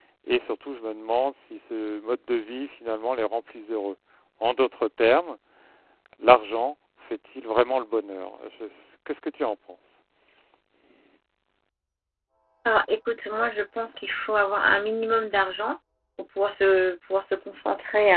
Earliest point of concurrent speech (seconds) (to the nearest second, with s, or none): none